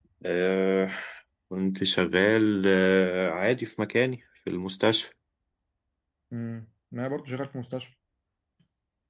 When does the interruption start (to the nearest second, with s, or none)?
none